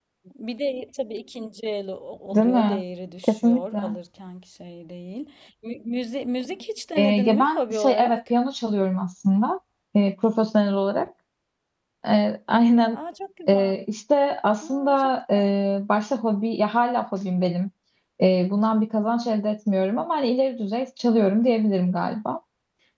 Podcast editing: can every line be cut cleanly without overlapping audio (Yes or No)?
No